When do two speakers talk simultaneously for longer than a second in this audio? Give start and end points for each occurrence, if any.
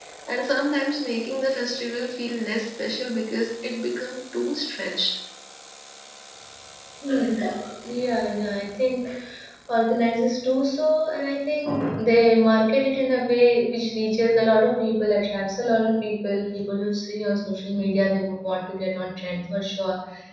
none

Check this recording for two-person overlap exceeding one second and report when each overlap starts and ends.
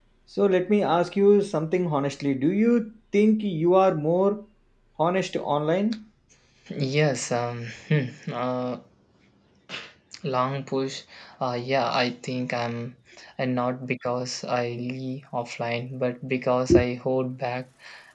none

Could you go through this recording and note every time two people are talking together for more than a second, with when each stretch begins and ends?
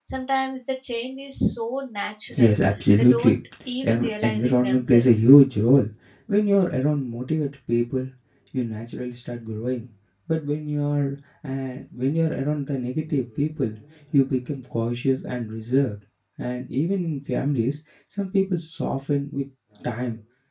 3.8-5.2

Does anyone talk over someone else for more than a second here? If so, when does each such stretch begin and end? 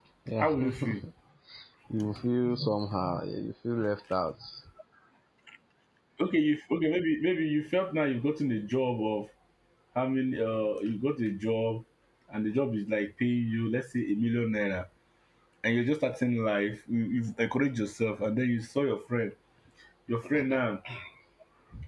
none

